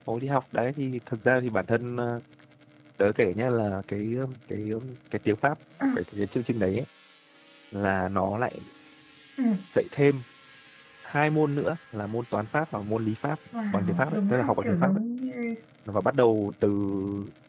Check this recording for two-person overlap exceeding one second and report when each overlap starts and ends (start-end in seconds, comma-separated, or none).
13.7-15.0